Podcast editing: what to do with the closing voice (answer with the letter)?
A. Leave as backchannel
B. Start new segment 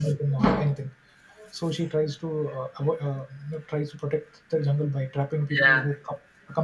A